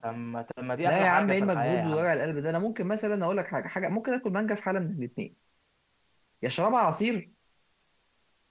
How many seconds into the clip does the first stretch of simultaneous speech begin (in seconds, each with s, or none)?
0.8 s